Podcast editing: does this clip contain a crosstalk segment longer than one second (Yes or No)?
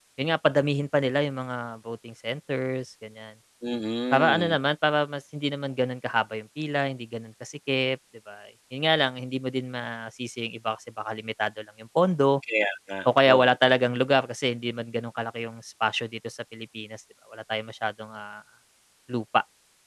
No